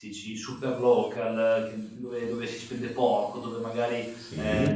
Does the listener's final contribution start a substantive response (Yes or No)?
No